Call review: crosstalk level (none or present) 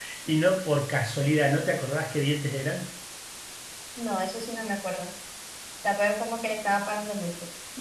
none